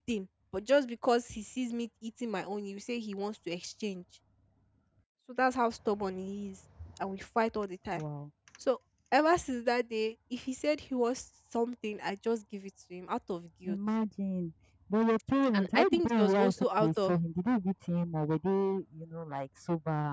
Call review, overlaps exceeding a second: present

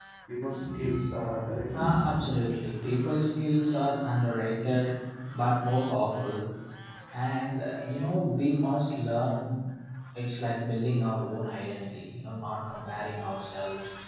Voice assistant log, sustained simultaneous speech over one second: none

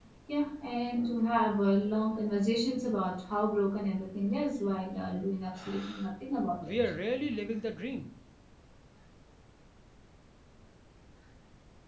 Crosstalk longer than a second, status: none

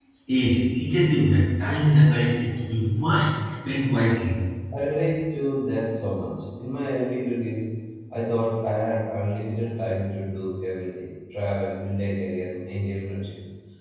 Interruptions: none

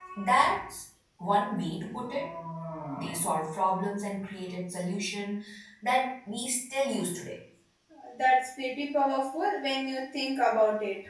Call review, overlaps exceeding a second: none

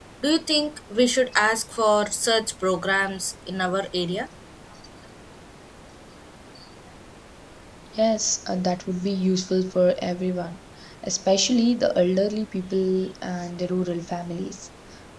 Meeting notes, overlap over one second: none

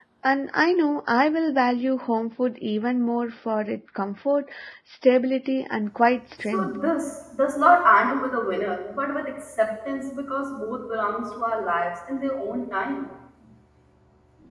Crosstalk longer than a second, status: none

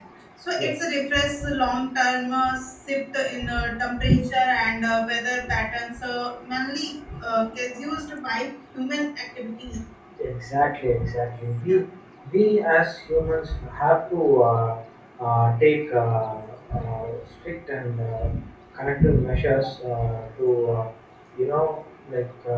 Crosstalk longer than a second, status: none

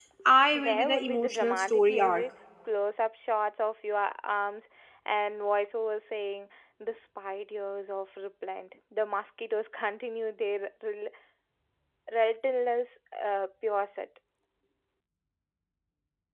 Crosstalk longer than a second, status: present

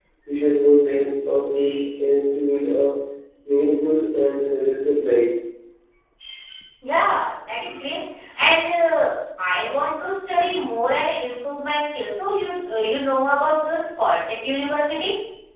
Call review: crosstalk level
none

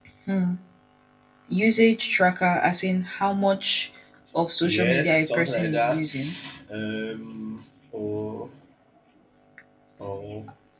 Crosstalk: present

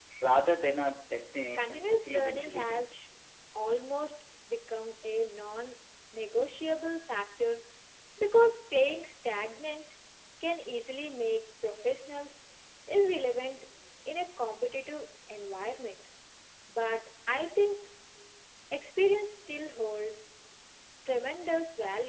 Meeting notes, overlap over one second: present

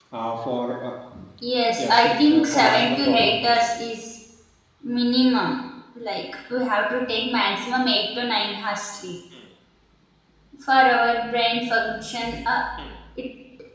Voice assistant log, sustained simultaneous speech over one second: present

